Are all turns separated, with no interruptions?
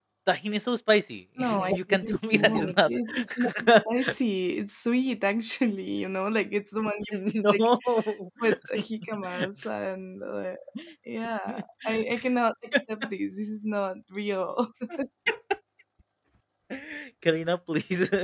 No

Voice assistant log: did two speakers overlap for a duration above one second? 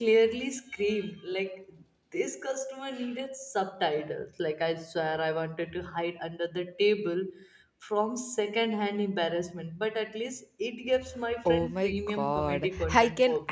Yes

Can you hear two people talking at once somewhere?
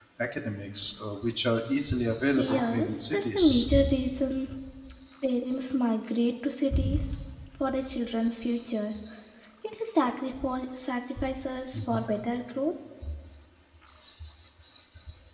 Yes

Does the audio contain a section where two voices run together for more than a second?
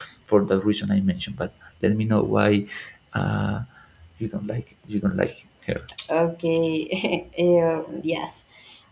No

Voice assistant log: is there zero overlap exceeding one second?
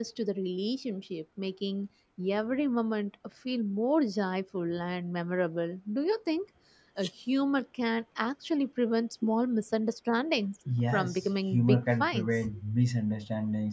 No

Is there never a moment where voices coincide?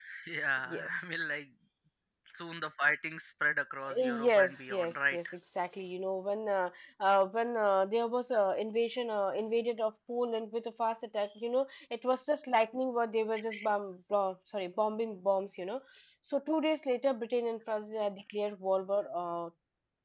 No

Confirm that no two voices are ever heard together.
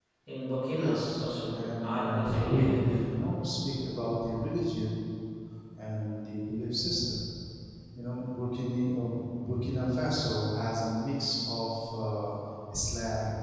No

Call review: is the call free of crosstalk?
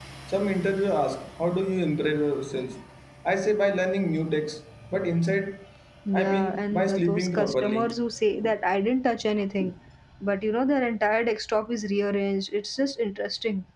No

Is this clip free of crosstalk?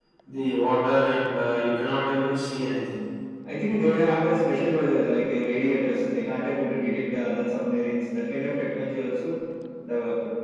Yes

